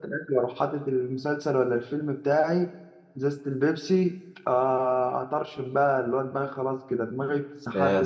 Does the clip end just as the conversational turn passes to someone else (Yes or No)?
Yes